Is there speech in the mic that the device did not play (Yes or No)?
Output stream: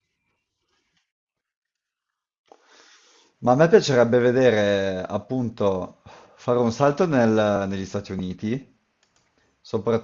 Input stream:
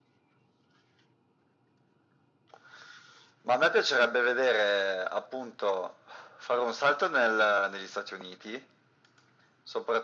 No